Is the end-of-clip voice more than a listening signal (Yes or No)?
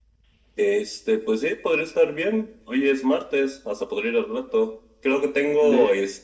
No